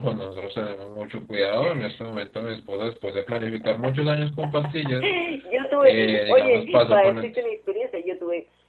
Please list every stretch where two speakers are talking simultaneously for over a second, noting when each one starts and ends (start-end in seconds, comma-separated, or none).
5.8-7.3